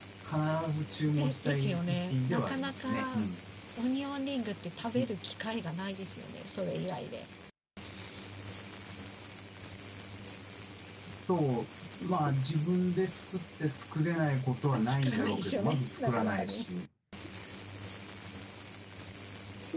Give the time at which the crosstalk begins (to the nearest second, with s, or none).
1 s